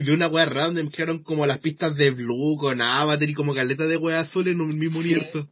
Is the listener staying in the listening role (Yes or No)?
No